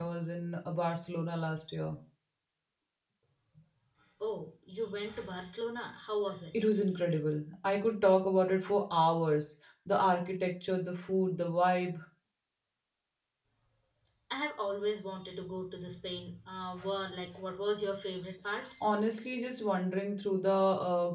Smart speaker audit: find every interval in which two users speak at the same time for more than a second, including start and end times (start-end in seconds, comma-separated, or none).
none